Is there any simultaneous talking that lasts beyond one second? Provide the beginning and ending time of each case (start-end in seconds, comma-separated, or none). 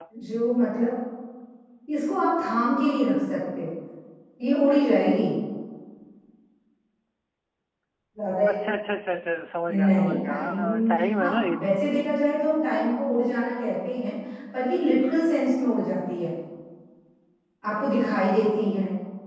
9.7-11.7